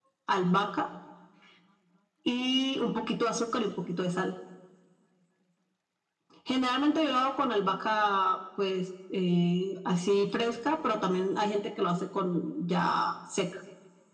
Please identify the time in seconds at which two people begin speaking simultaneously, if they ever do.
none

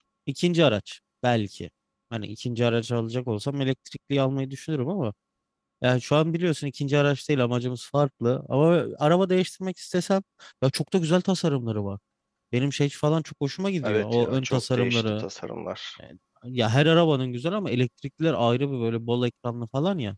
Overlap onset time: 14 s

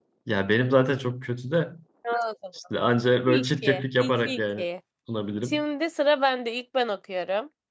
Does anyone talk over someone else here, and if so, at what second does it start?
3 s

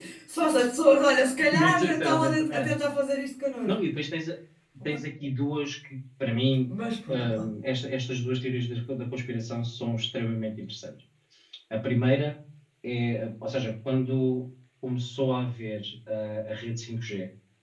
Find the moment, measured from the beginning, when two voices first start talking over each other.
2 s

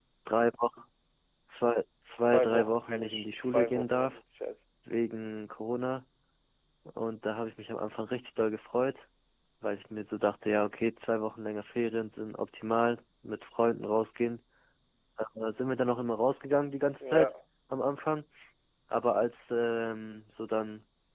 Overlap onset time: 2 s

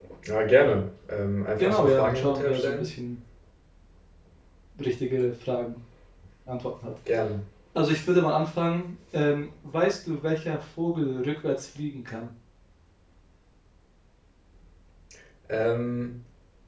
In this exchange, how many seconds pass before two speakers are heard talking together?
2 s

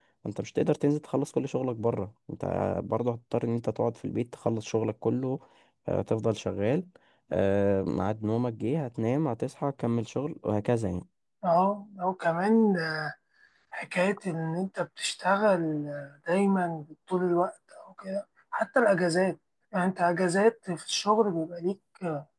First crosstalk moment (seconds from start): none

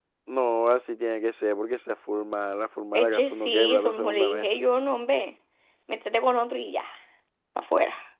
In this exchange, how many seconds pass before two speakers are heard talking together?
3 s

